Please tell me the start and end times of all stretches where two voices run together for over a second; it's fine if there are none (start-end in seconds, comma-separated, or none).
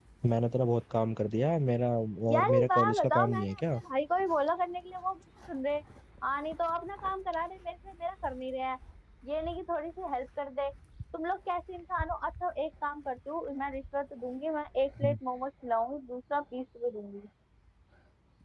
2.3-3.8